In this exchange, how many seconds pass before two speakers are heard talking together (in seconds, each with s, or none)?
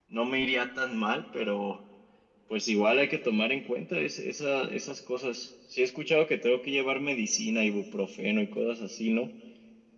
none